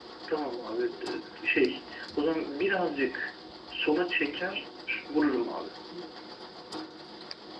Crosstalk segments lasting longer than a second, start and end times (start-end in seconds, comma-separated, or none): none